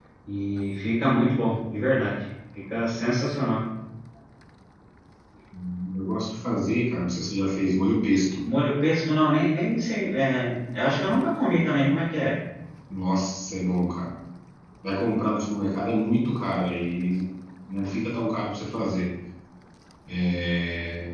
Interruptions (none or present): none